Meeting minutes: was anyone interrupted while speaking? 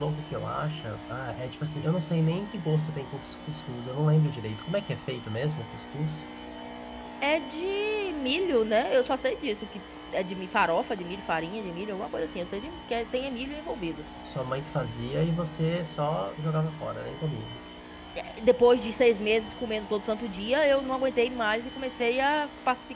No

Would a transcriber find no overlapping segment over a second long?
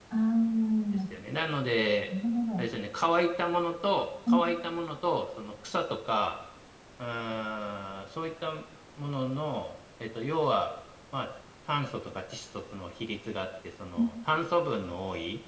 Yes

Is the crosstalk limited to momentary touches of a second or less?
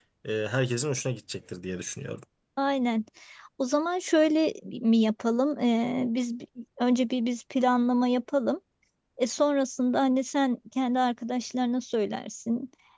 Yes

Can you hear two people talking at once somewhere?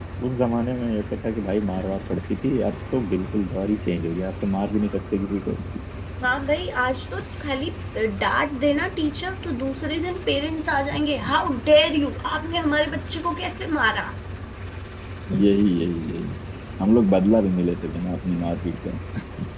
No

